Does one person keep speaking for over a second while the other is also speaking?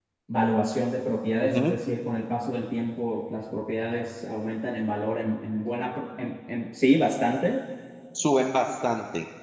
No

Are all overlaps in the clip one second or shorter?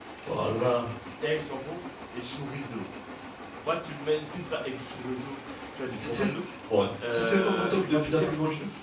No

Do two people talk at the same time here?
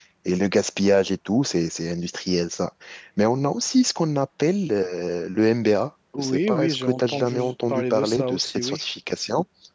Yes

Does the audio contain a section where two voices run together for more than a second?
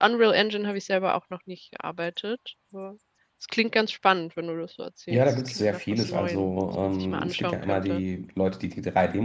Yes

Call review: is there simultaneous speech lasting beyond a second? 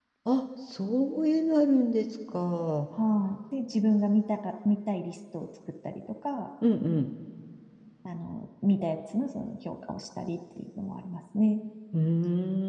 No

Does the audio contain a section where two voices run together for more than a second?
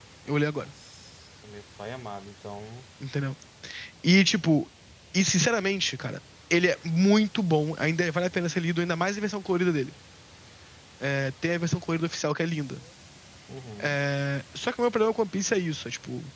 No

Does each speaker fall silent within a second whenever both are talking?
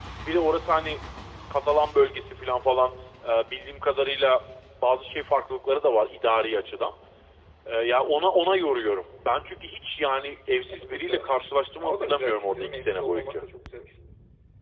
No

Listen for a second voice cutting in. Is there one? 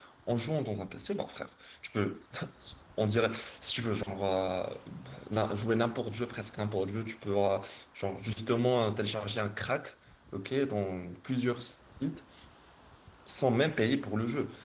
No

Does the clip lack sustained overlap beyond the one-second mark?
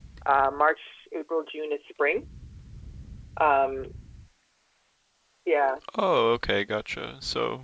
Yes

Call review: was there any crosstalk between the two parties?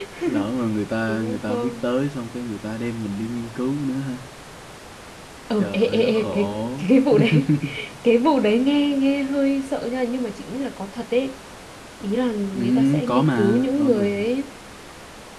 Yes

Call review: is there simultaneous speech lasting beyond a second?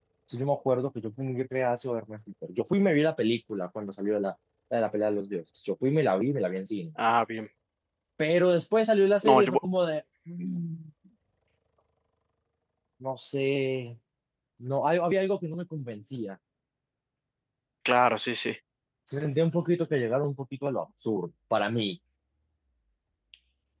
No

